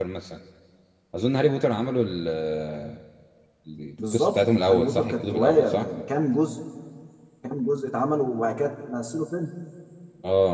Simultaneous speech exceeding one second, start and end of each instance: 4.1-5.8

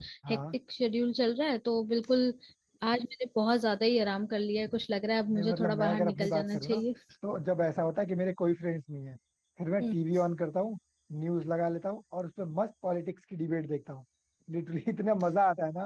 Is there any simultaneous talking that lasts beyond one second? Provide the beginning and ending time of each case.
5.3-6.8

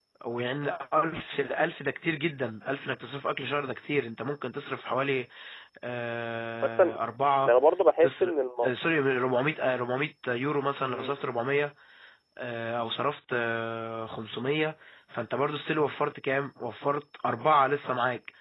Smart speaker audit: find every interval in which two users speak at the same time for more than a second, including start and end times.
none

